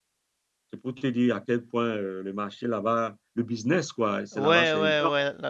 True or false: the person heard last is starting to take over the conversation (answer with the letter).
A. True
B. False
A